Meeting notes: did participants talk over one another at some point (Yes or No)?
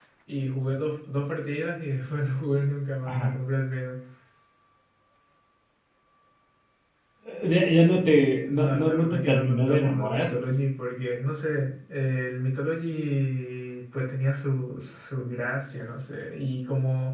Yes